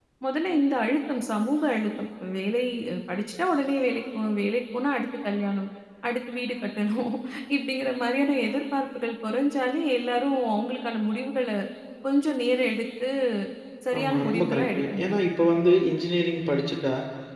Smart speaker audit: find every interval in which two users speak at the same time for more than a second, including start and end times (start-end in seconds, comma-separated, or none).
14.0-15.2